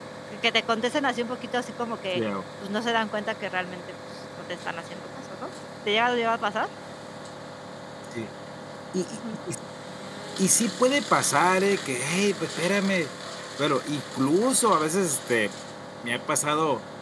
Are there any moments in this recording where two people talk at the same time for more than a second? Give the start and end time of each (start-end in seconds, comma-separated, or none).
none